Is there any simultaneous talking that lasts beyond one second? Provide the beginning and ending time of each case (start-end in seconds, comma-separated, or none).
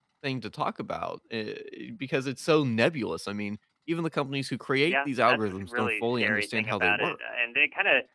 4.9-7.2